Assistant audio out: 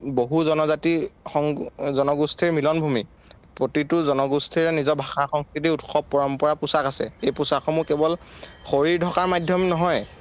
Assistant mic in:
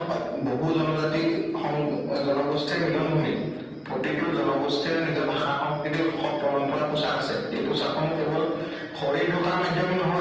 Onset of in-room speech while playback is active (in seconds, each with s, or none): none